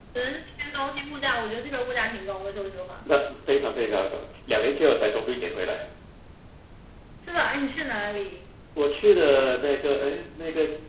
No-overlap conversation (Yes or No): Yes